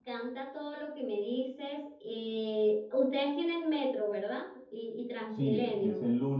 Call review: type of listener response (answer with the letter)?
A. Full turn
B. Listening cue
A